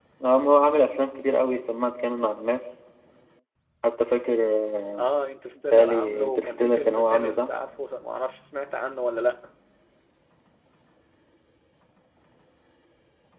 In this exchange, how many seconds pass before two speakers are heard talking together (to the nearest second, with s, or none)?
6 s